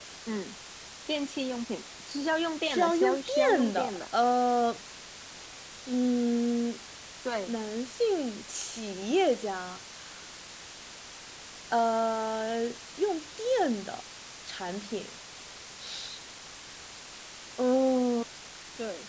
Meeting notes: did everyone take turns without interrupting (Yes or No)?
No